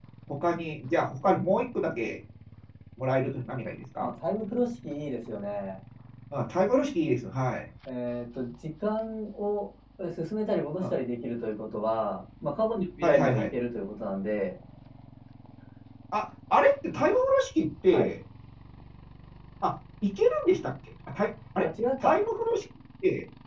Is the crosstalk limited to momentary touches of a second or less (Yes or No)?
Yes